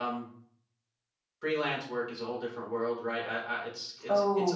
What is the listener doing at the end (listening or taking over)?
listening